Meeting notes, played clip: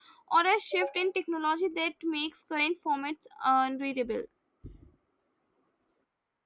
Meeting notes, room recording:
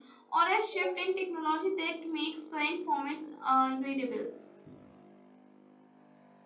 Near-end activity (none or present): none